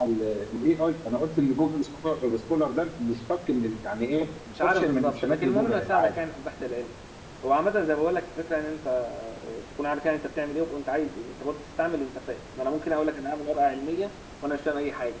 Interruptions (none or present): present